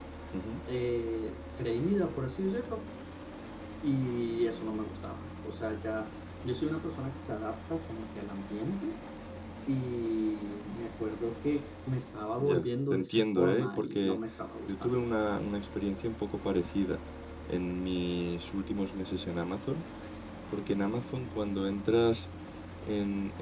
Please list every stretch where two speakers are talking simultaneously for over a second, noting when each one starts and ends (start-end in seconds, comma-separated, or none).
12.4-14.2